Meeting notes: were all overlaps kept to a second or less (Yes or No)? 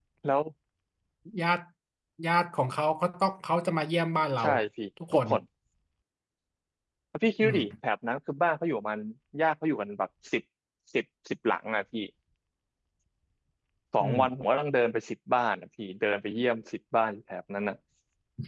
Yes